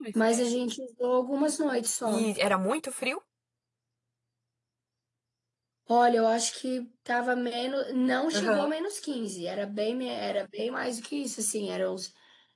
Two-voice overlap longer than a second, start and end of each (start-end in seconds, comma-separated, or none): none